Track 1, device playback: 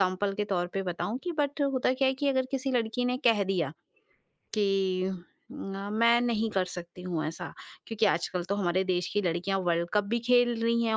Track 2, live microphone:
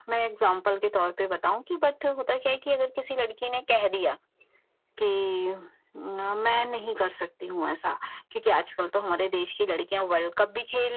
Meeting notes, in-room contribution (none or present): none